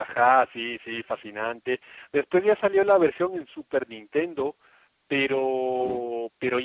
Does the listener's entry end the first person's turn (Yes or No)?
No